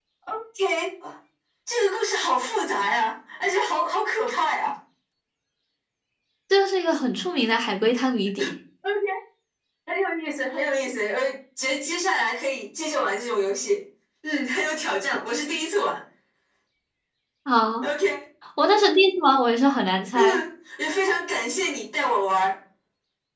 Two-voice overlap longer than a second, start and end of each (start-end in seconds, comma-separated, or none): none